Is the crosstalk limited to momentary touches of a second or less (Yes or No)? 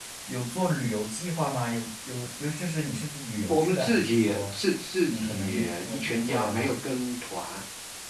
No